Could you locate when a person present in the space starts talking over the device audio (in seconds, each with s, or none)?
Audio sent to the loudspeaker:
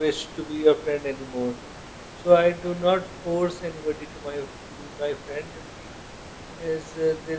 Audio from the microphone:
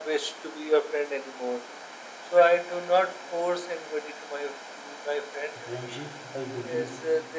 5.6 s